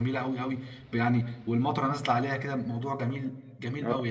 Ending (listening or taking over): taking over